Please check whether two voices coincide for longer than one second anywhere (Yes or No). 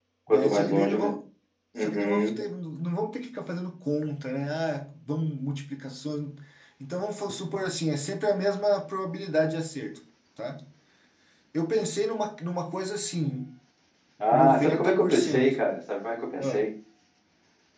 Yes